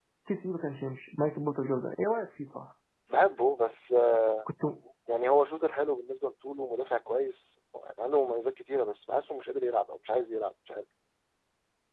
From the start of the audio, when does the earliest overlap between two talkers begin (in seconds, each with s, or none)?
none